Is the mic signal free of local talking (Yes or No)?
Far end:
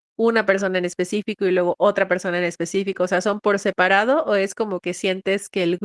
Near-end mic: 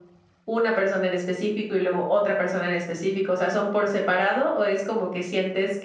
Yes